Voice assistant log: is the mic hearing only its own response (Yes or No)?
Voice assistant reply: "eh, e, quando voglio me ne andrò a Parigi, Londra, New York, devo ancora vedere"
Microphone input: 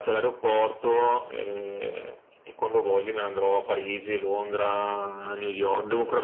Yes